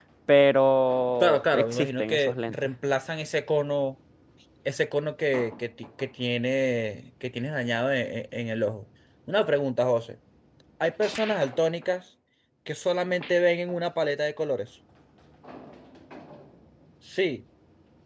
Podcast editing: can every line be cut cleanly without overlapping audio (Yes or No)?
No